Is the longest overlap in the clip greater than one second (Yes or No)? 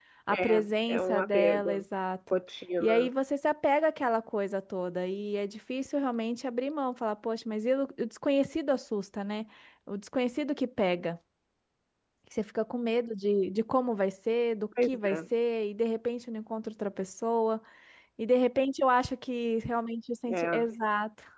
Yes